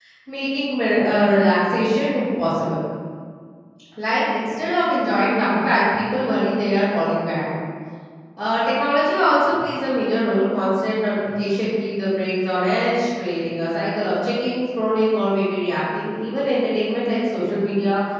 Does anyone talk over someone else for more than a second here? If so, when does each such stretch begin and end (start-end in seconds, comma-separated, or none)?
none